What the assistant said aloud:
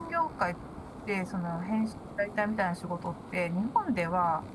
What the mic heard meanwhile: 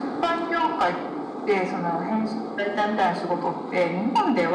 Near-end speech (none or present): none